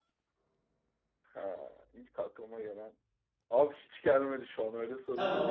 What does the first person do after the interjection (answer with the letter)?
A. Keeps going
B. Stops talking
B